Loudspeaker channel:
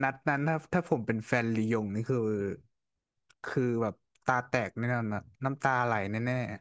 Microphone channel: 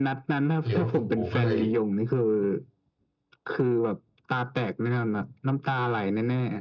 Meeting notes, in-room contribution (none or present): present